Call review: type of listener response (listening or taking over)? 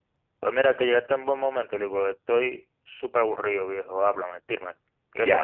taking over